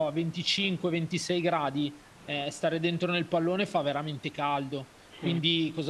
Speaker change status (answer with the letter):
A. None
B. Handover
A